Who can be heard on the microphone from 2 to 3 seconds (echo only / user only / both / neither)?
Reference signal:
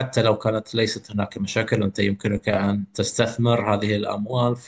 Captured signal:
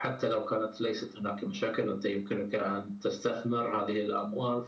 echo only